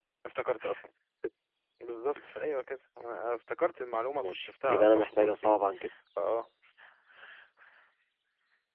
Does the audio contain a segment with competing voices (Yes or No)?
Yes